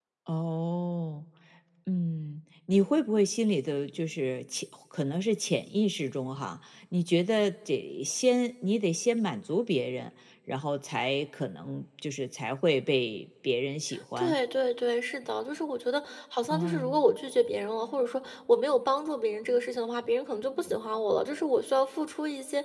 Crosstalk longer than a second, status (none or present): none